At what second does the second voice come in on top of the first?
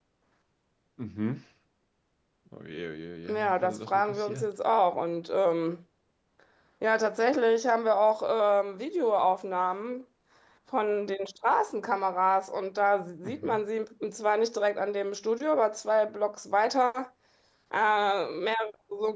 3.3 s

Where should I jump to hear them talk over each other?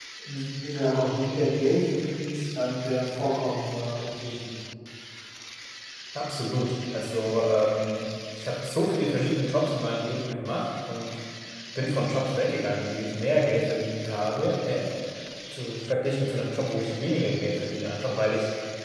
none

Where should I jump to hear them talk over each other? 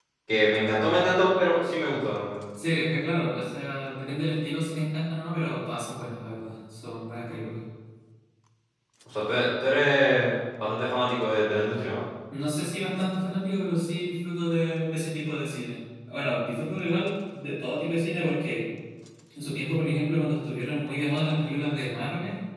none

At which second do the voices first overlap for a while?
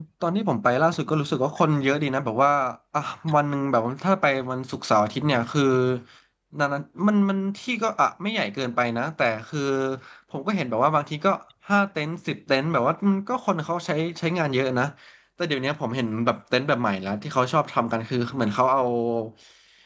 none

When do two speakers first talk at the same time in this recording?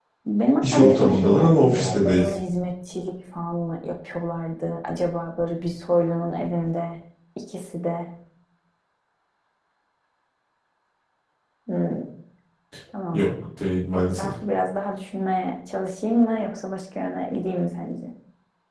0.6 s

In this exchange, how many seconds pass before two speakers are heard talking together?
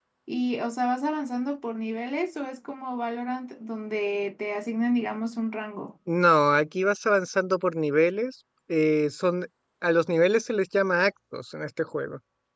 none

